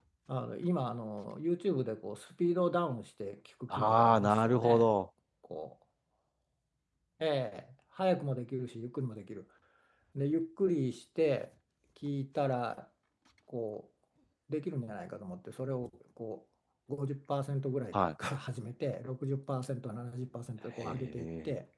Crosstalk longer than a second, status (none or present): present